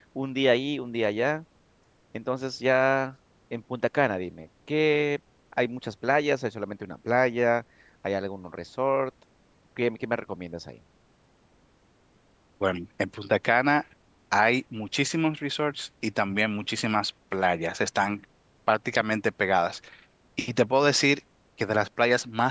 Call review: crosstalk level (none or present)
none